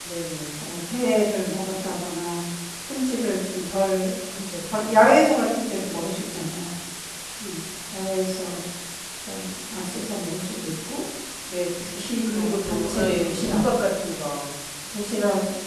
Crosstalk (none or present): present